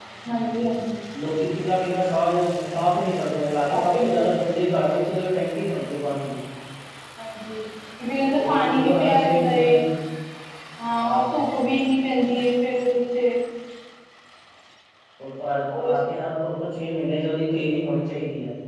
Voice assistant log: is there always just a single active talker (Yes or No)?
No